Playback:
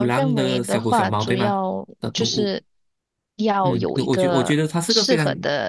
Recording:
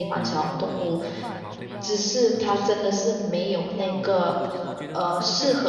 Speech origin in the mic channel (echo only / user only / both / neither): both